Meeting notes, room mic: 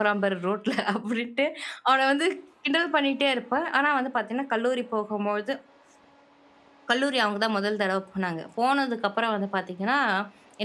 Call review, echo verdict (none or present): none